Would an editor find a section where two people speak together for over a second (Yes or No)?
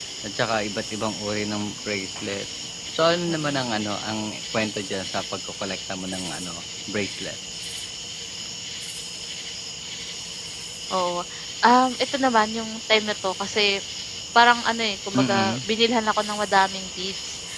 No